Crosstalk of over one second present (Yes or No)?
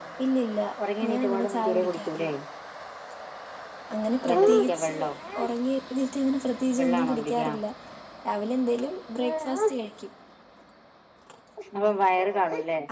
Yes